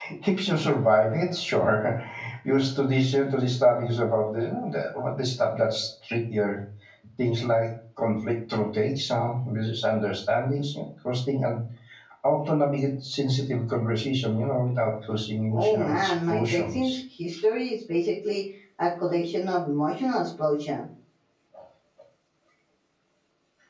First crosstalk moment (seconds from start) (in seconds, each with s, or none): 15.5 s